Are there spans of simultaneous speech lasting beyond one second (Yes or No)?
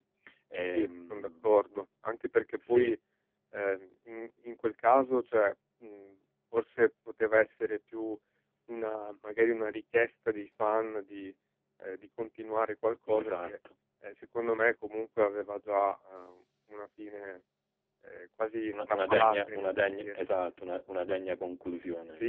Yes